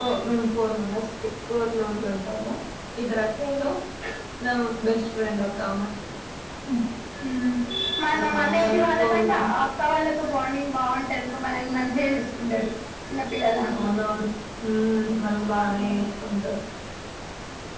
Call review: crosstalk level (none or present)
present